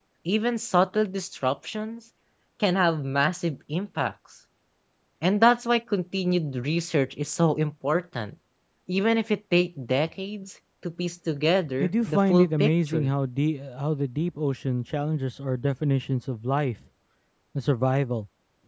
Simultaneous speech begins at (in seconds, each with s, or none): 11.8 s